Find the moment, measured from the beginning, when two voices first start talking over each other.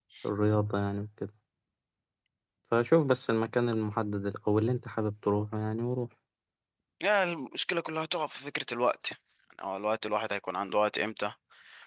none

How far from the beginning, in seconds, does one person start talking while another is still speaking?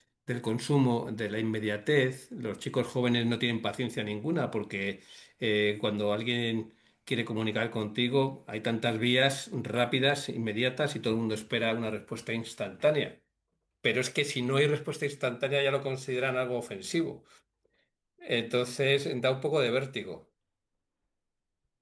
none

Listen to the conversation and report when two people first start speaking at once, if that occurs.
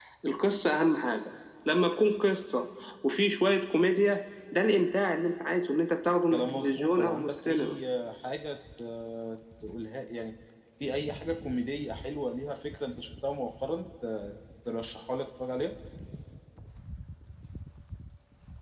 6.3 s

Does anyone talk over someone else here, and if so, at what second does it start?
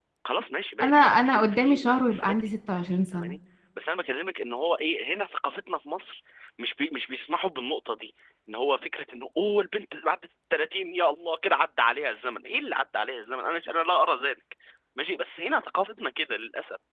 0.8 s

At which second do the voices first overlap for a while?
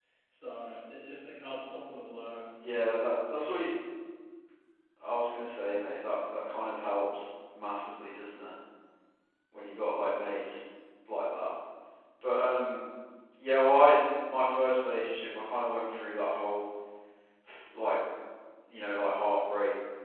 none

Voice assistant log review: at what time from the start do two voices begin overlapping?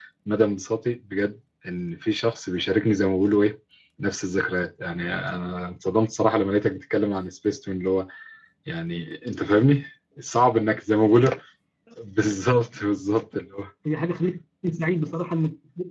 none

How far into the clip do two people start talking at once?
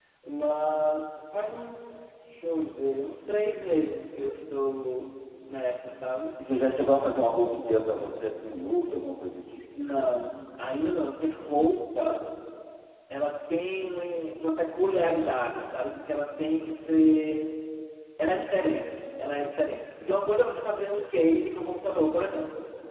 none

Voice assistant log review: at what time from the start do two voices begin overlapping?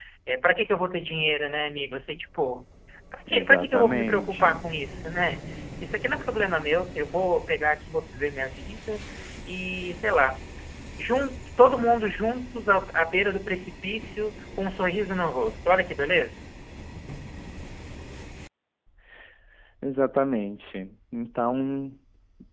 3.3 s

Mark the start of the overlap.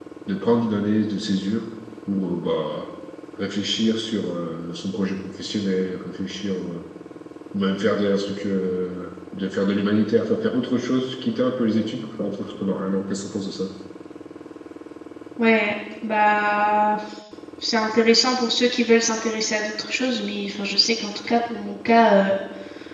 none

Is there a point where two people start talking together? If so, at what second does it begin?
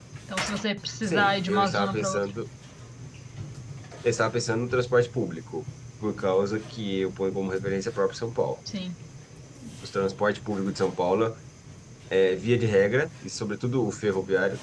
1.0 s

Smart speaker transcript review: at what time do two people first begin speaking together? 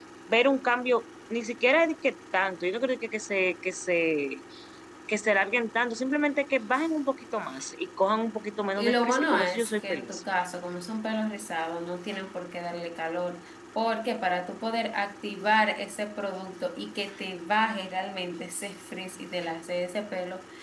8.8 s

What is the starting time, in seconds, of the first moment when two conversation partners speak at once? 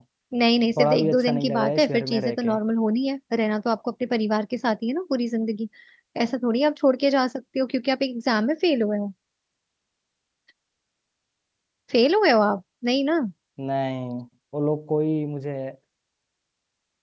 0.8 s

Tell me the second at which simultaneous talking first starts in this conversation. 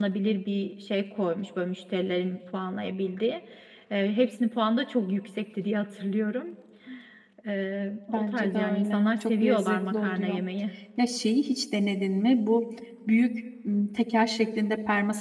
8.1 s

